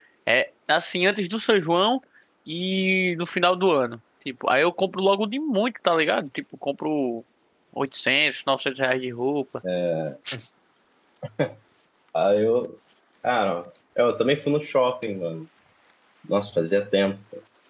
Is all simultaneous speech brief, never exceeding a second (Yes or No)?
Yes